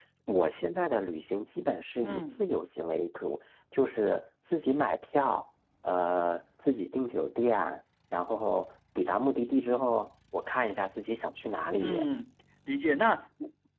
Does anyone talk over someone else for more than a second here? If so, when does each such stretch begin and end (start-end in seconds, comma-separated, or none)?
none